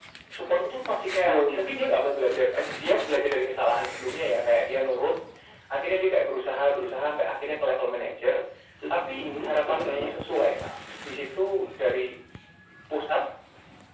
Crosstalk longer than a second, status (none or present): present